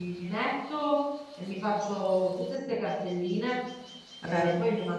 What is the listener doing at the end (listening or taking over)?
listening